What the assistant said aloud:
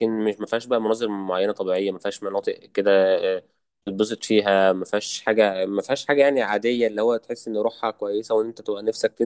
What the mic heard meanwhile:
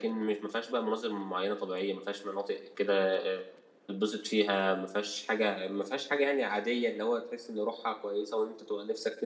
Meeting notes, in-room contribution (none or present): none